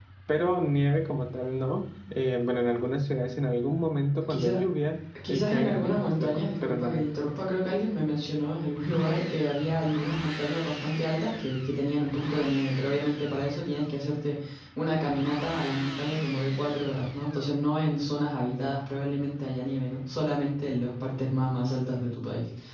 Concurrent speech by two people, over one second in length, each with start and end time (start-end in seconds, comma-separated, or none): 5.3-6.9